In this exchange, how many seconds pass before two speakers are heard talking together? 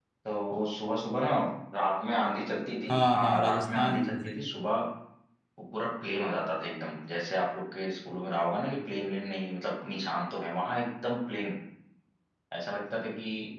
2.9 s

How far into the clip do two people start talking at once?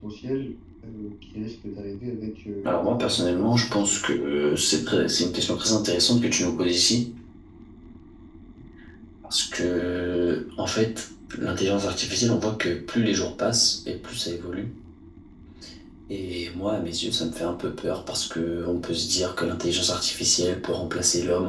2.6 s

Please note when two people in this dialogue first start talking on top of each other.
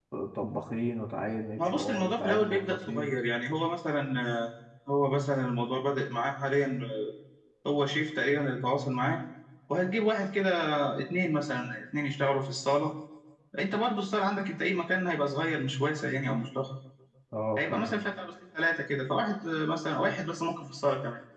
1.6 s

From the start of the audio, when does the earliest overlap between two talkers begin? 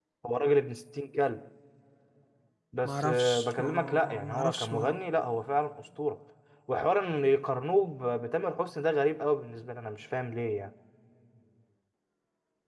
2.8 s

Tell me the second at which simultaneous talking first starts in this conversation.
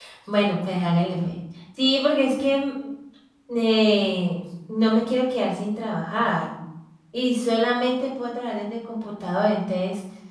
none

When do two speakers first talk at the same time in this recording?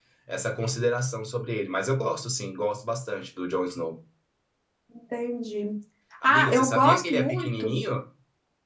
6.2 s

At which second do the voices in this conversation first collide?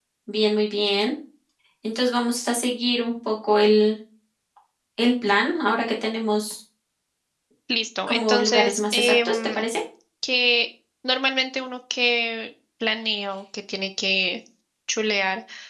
8.1 s

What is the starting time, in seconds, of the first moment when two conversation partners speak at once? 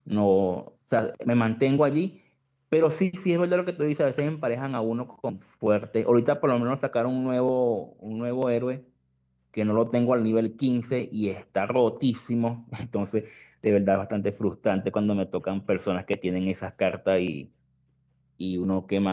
none

